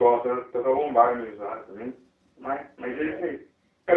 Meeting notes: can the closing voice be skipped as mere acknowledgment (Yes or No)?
Yes